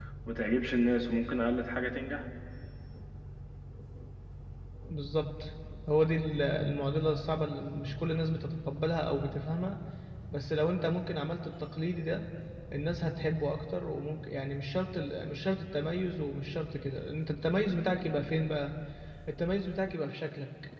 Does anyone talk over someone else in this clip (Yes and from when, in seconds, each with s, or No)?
No